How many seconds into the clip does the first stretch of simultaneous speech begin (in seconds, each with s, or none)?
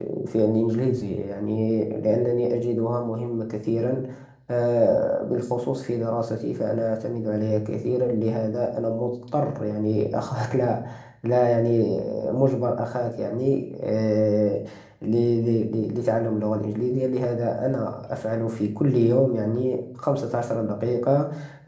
none